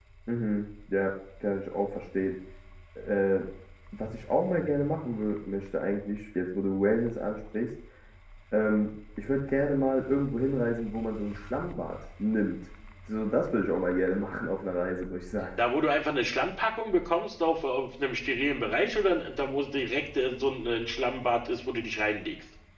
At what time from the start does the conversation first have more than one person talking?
none

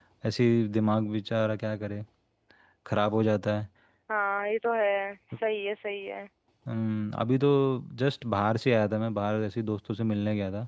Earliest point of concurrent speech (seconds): none

